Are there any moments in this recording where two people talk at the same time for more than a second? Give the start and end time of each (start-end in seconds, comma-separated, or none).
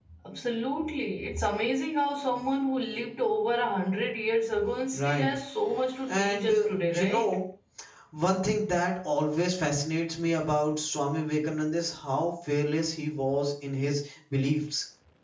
6.1-7.3